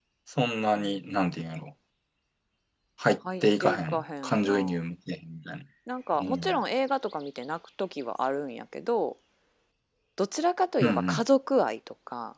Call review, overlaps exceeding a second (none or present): present